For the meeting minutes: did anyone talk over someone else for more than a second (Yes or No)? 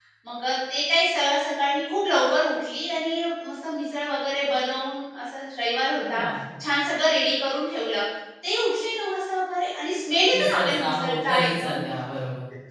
Yes